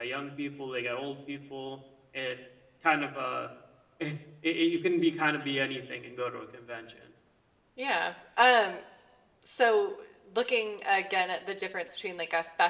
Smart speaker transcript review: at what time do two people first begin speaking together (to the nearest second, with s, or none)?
none